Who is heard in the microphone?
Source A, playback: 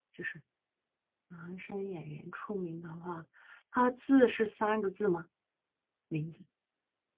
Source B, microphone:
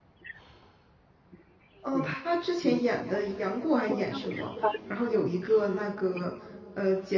both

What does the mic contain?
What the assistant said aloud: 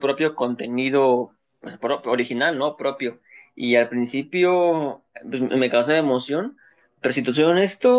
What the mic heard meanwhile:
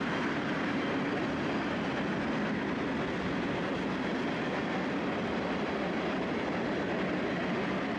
neither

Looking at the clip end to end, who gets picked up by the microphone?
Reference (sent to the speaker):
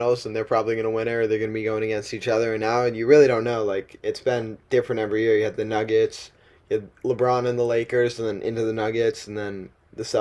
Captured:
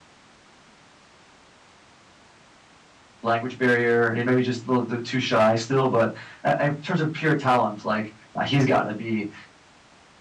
user only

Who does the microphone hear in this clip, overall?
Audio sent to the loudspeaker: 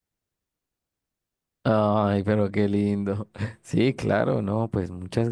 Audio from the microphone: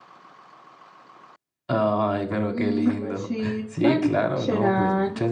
both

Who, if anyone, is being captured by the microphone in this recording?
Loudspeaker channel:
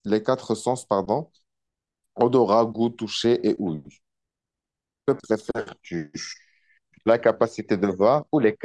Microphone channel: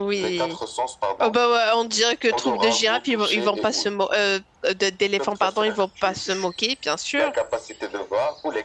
both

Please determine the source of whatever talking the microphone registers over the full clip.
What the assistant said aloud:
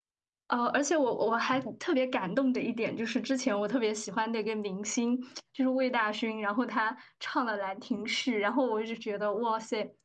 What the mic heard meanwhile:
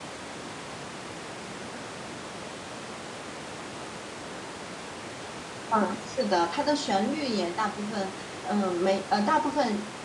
user only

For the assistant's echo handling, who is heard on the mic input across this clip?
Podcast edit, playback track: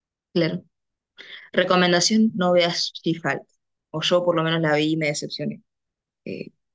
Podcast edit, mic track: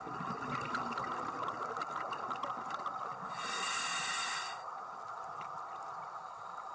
neither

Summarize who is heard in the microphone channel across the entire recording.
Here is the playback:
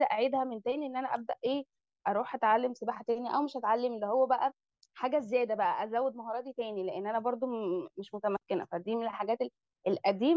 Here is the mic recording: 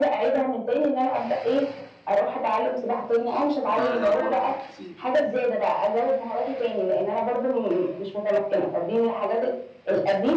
both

